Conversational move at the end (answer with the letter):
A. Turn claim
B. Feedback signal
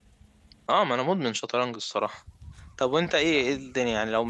B